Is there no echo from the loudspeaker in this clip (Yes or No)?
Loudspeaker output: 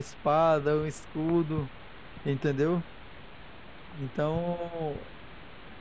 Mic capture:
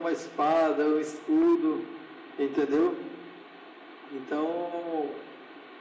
No